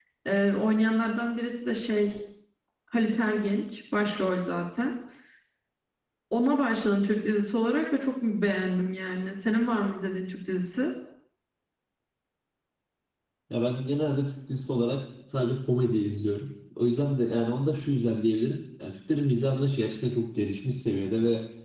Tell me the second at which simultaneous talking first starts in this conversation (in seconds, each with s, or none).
none